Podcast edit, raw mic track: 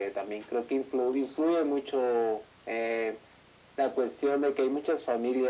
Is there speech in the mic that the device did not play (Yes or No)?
No